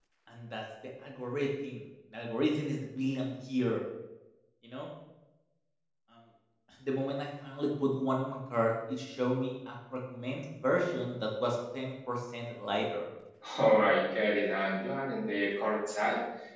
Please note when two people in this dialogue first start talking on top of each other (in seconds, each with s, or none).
none